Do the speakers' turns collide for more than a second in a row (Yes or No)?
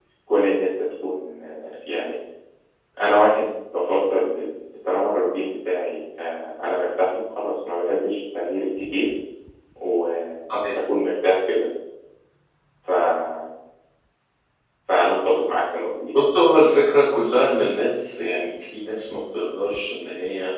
No